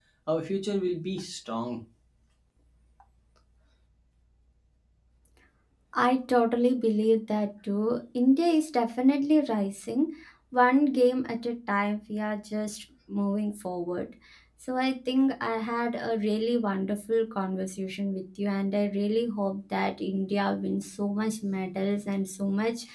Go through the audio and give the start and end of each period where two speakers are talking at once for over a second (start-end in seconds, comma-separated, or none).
none